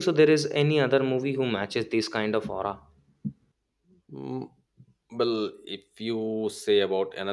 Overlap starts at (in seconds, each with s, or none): none